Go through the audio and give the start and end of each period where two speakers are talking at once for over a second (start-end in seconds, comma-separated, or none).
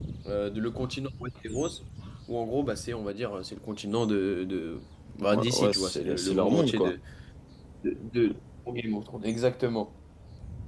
5.3-7.0